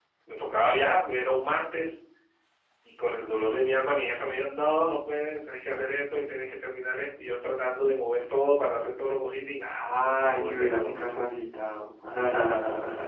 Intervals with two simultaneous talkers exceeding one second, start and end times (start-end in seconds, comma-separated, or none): 9.8-11.2